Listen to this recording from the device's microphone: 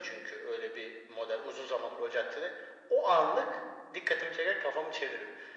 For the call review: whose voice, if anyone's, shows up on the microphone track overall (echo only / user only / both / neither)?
echo only